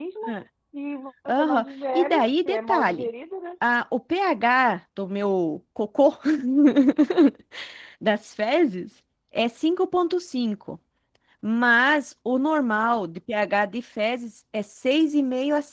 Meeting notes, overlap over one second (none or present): present